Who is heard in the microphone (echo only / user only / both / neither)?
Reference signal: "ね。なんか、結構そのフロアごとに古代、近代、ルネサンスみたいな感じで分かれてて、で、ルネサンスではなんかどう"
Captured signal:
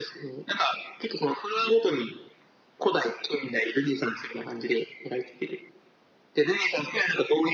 echo only